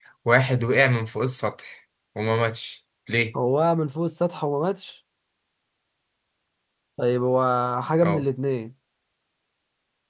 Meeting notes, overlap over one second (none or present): none